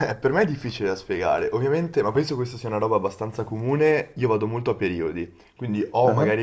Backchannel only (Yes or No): Yes